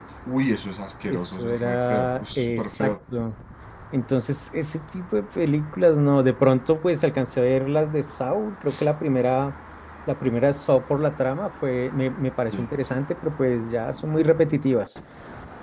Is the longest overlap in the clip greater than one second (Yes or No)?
Yes